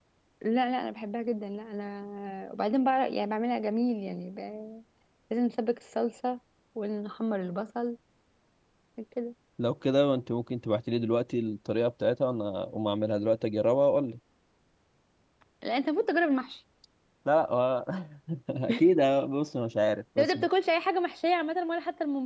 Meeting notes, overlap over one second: none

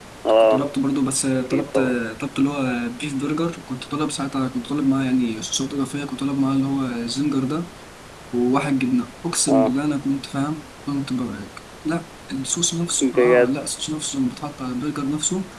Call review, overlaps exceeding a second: none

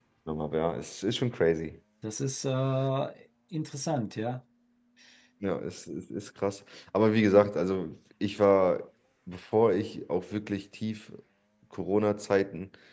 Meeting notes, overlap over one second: none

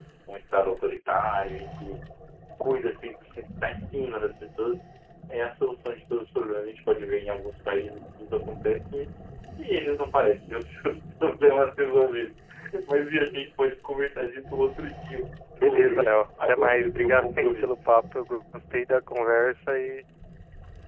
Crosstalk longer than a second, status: present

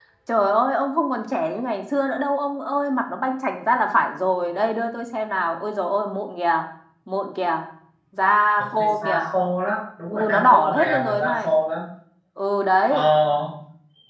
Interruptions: present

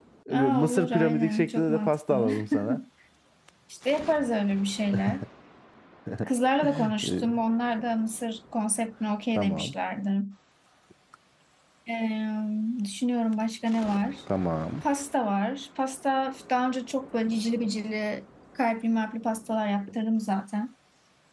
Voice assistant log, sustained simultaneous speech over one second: present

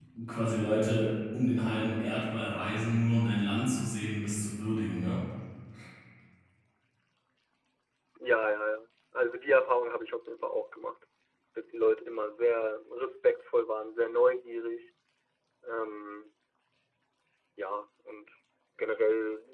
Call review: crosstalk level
none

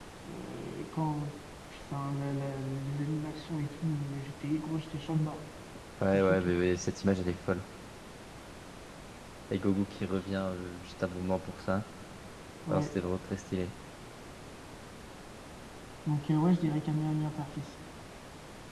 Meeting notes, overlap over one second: none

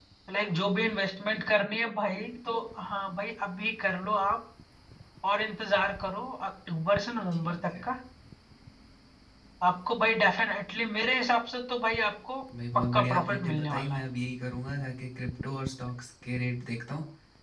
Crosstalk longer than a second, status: present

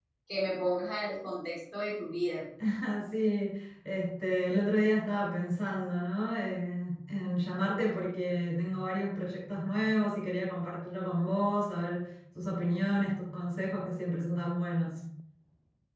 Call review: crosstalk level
none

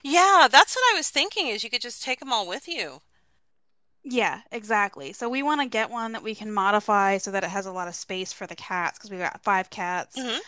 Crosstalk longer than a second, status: none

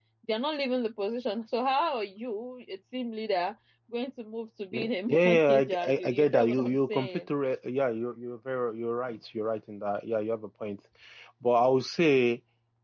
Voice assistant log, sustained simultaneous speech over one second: present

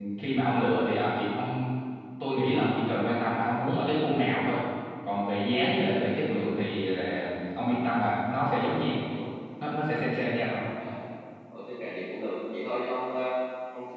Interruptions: none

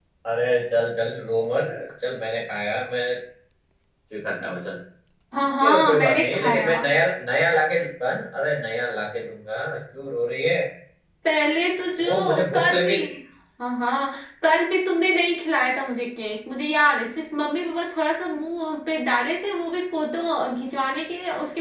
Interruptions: present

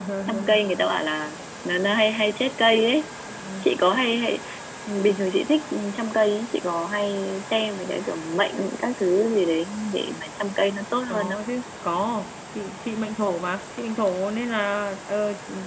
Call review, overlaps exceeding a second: none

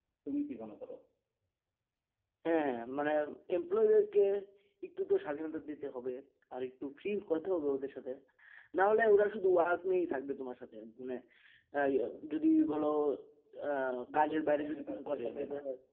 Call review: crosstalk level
present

